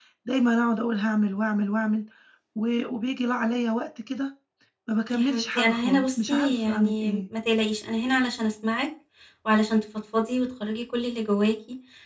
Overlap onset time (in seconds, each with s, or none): 5.1 s